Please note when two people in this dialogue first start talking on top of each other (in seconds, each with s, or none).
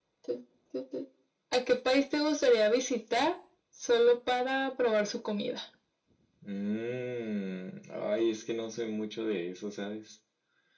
none